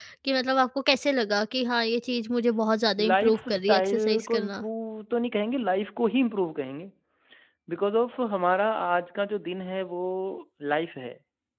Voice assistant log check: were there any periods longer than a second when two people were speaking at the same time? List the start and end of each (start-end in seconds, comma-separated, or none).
3.0-4.6